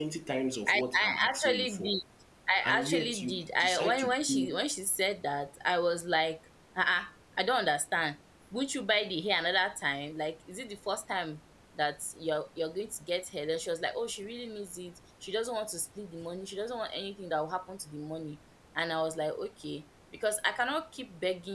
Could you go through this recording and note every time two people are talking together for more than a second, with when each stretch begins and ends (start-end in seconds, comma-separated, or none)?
0.7-1.9, 2.6-4.6